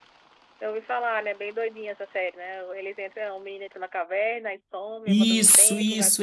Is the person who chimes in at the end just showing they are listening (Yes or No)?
No